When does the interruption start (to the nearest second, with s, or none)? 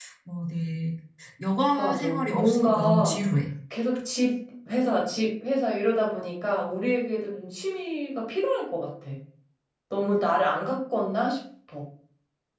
2 s